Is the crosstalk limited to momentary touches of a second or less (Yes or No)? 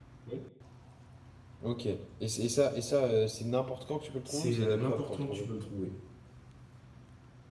No